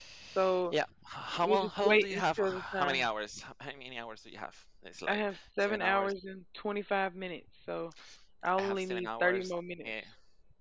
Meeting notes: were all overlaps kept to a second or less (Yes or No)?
No